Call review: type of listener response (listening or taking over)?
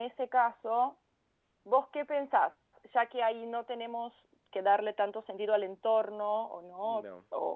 listening